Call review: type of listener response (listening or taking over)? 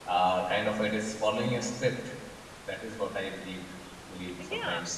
taking over